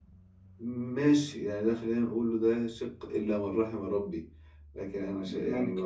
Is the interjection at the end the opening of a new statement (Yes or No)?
No